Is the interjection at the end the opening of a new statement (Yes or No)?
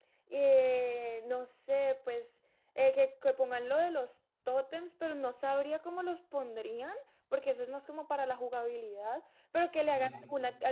No